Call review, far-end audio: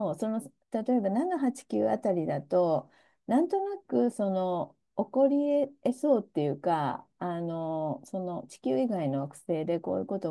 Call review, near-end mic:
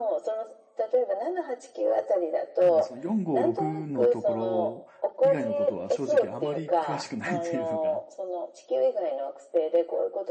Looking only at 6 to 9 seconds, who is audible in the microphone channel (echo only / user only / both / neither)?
both